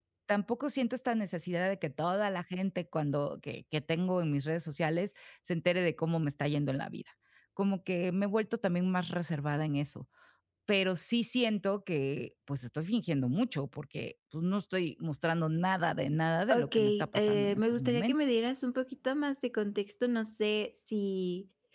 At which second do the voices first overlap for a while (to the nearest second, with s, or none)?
17 s